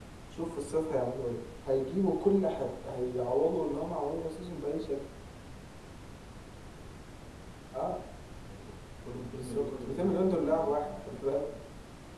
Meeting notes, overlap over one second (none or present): present